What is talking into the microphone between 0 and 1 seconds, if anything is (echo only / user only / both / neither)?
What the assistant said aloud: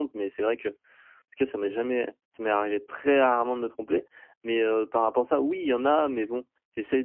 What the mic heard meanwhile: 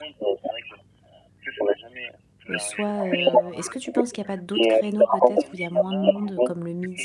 echo only